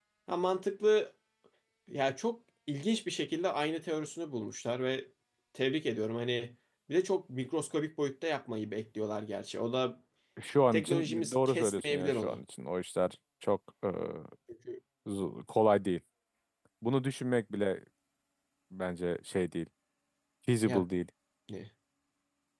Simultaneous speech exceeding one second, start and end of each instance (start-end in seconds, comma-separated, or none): 10.7-12.4